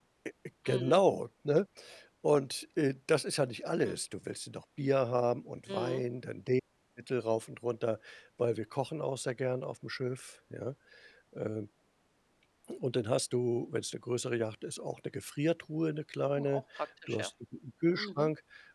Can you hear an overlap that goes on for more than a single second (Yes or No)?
No